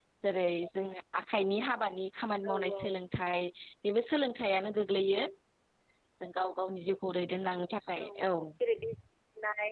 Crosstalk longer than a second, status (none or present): none